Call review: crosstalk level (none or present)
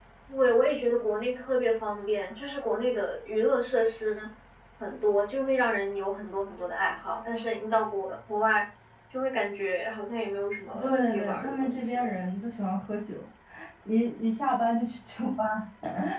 present